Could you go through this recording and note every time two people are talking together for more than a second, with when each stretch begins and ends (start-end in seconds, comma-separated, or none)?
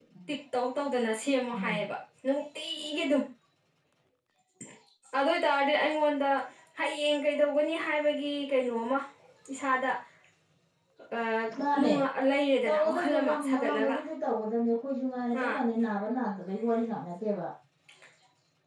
12.6-14.0